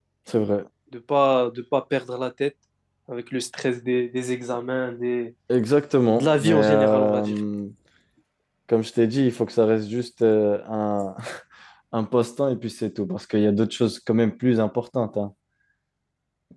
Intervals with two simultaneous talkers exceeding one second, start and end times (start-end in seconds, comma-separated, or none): 6.2-7.4